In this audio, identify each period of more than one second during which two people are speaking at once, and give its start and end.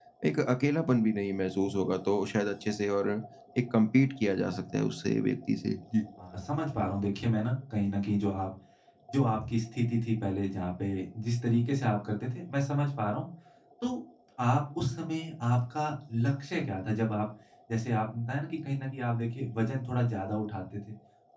none

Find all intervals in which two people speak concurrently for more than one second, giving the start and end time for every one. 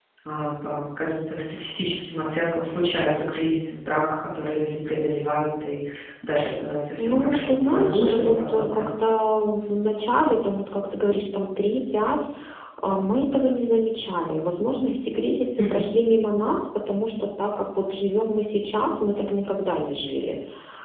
7.0-8.9

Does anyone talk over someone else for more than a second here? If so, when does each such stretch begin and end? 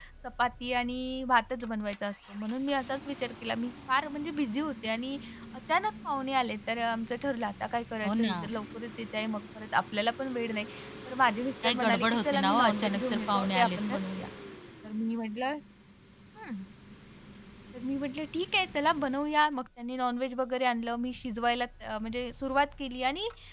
11.6-14.0

